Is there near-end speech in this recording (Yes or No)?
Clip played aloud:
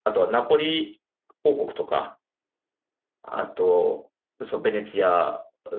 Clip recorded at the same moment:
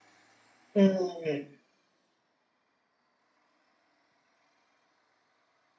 Yes